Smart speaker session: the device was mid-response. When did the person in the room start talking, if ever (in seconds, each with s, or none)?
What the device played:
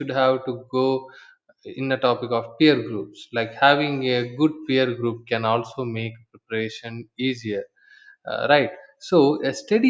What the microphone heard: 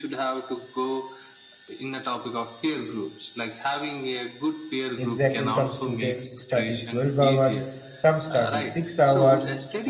4.9 s